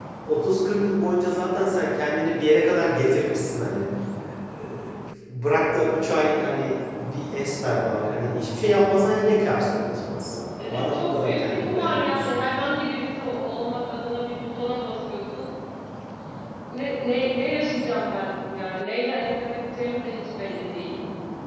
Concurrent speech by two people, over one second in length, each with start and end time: 10.6-12.4

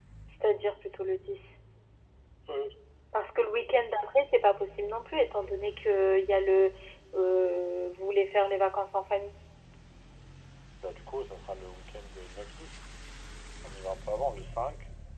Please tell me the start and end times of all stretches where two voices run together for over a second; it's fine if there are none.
none

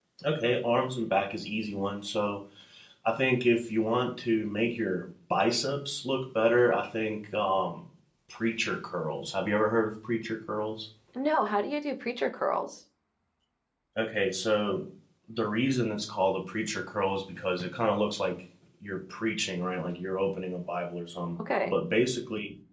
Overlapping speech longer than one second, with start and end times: none

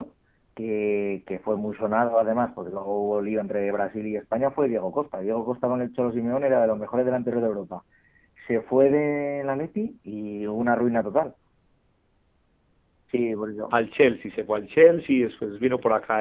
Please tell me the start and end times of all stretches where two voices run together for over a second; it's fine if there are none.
none

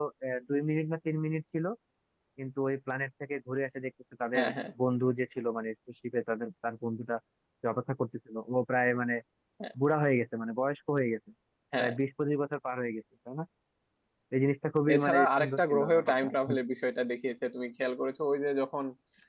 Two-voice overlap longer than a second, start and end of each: 14.9-16.3

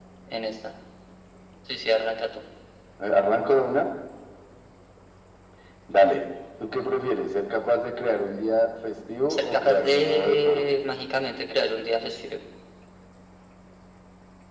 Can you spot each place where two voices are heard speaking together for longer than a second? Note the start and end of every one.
9.3-10.8

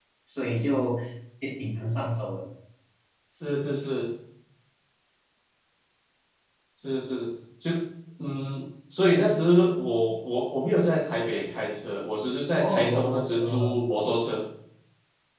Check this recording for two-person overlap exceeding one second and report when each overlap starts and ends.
12.6-13.8

